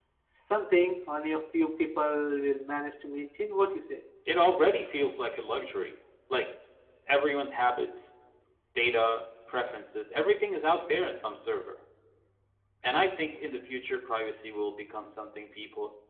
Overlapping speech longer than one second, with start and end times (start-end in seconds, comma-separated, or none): none